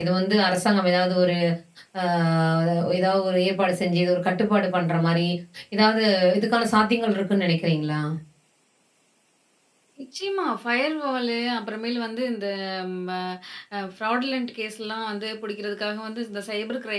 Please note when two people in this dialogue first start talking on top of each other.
none

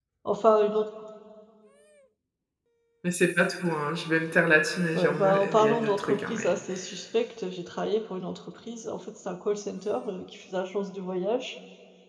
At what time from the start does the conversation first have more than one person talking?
5 s

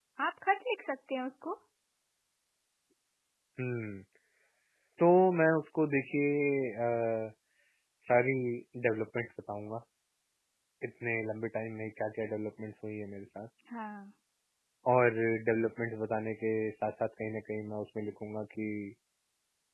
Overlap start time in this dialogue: none

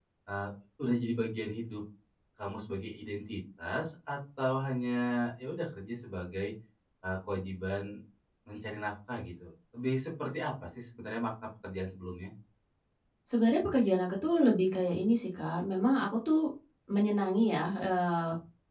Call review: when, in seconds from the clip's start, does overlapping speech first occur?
none

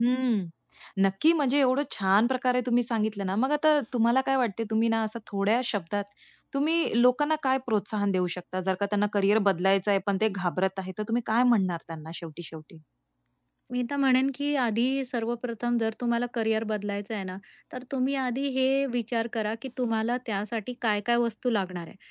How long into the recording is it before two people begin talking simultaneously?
none

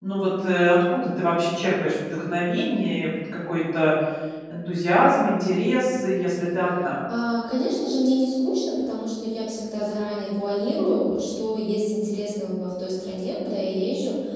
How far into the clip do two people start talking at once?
none

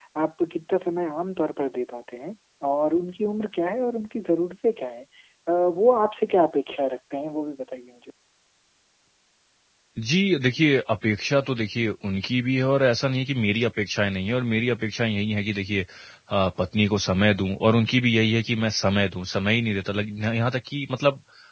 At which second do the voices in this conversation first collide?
none

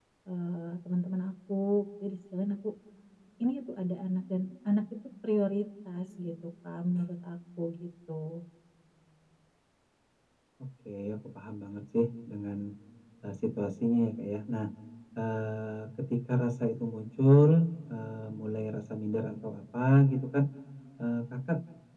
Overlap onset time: none

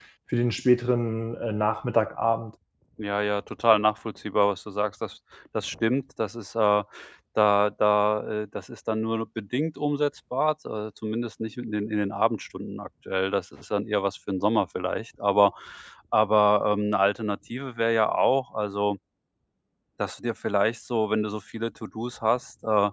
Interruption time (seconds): none

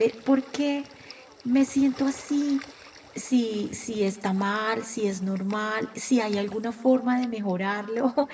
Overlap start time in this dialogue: none

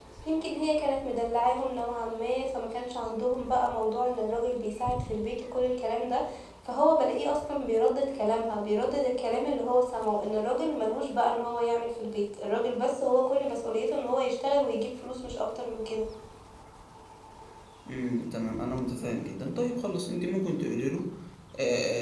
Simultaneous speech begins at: none

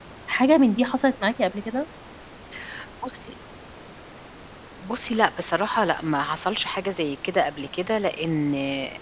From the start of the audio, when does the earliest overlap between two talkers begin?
none

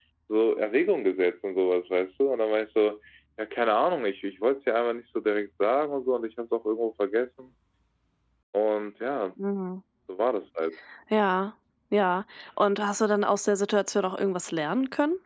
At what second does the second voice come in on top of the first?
none

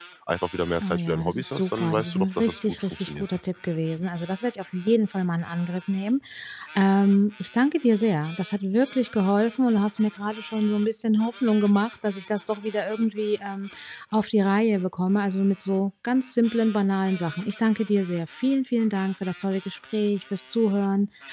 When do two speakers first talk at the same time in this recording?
1 s

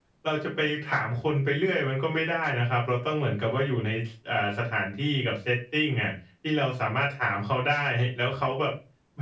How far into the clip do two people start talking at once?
none

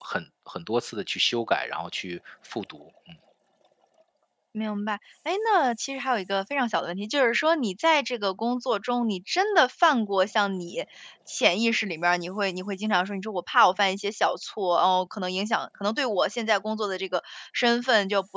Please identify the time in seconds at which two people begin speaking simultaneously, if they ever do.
none

